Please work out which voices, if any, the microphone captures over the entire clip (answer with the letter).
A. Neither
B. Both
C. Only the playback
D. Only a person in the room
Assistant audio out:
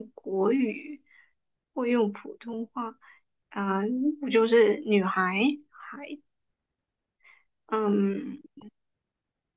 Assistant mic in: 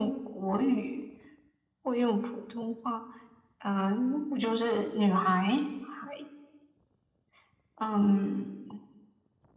C